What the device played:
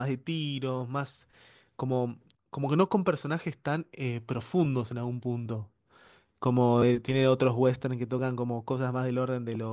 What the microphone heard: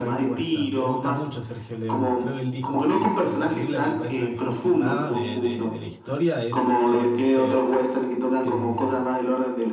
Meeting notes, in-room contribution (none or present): present